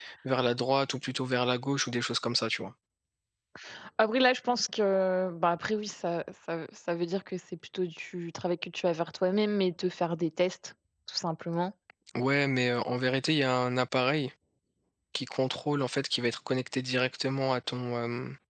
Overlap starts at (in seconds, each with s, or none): none